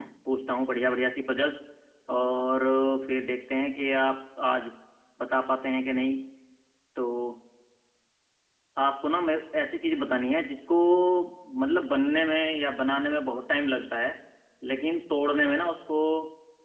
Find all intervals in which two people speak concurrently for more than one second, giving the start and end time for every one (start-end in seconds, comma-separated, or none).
none